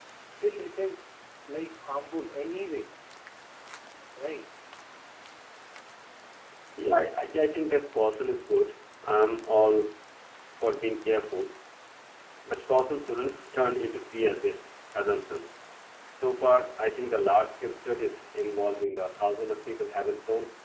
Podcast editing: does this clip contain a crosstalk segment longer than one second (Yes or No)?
No